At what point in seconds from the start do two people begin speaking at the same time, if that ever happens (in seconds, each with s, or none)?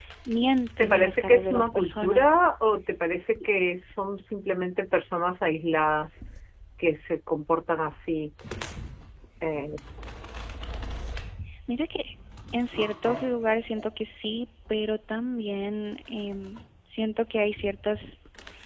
0.8 s